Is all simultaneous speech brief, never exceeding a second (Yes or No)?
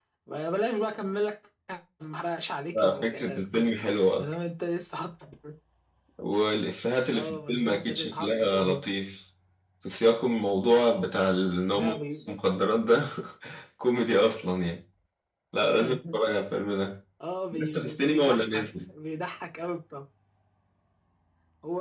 No